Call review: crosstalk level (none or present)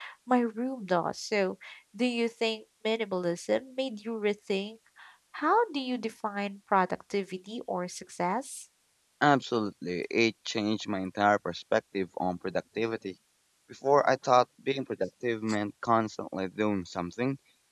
none